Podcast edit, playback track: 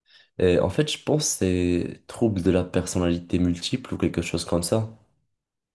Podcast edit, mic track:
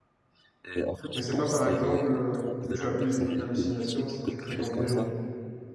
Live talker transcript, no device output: Mais c'est pas, par exemple, euh, tu as plus d'hallucinations si tu fréquentes des gens.

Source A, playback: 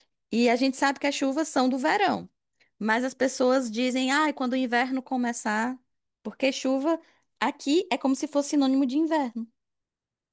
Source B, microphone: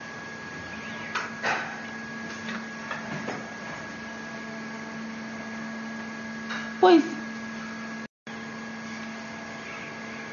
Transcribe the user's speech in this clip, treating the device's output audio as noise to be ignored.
Pois

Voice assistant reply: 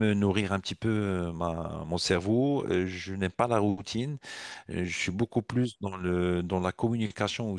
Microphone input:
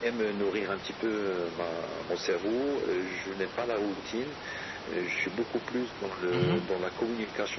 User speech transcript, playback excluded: Mhm.

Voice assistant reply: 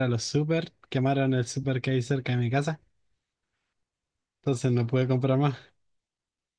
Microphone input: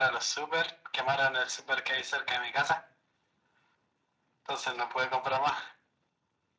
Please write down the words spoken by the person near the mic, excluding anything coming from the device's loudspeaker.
none

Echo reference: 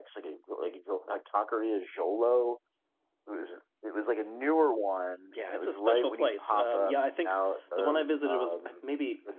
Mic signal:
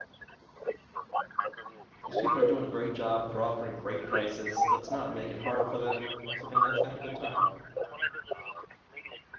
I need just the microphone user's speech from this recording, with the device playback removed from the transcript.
these people are doing a great job. They're offering great prices. Let's not make it harder for them, so- and let's have a good time.

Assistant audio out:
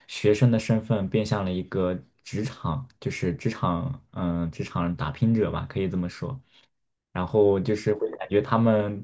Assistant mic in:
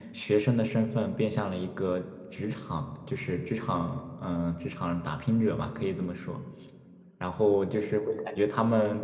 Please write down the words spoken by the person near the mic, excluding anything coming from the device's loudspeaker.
none

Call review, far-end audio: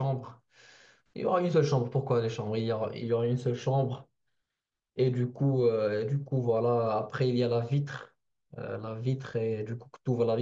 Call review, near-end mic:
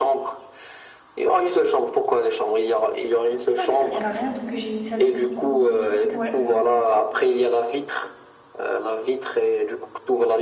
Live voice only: Non, en fait, ça sert à rien parce que j'ai une salle de cinéma. Donc ouais, je.

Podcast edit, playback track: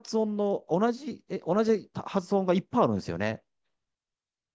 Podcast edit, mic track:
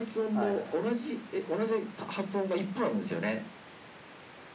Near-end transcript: はい。

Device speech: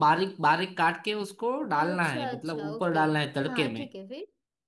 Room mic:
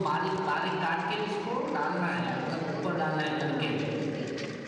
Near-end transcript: none

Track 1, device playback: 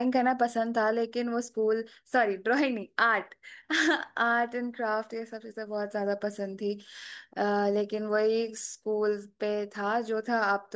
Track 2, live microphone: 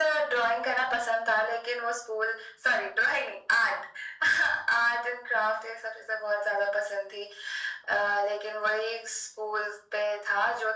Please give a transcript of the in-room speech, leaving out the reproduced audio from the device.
none

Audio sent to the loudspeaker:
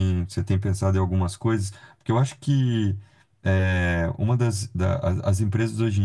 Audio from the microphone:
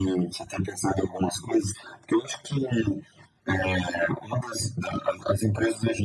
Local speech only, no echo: none

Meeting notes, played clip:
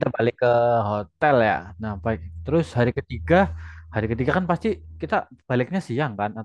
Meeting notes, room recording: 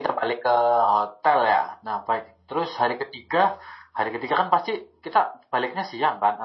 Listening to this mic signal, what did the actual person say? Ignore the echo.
none

